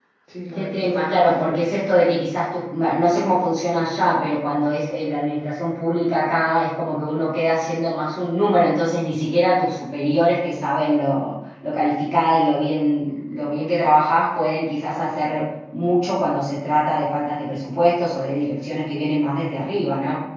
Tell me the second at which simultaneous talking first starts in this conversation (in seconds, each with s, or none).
0.5 s